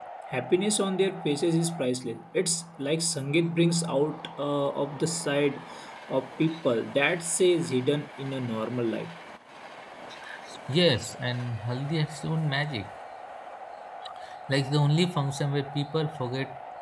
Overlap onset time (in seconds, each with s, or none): none